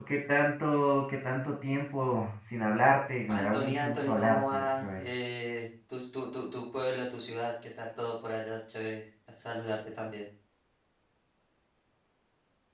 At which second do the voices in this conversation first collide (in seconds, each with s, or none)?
3.3 s